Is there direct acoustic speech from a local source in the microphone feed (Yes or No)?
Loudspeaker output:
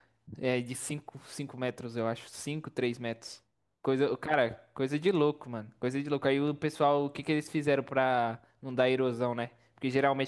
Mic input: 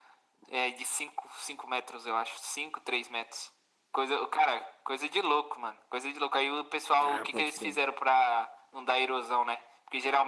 Yes